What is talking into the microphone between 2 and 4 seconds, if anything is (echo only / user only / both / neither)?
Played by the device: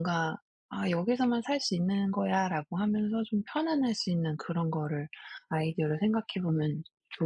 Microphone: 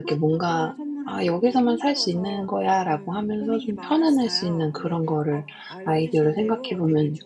both